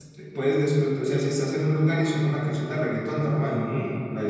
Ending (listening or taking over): taking over